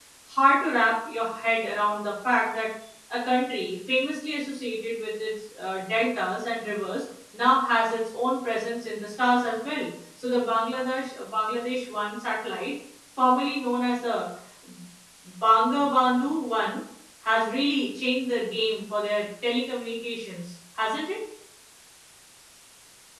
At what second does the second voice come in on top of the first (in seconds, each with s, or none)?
none